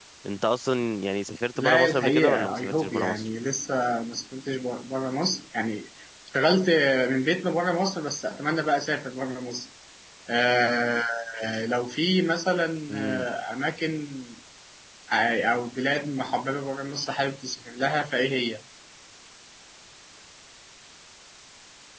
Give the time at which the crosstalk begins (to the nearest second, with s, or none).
2 s